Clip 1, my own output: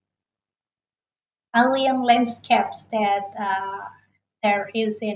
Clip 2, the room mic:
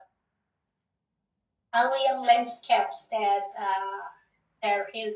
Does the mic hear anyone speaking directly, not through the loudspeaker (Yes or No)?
No